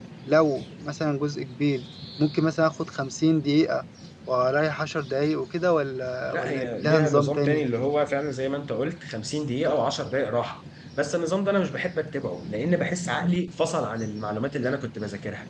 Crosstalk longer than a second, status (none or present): present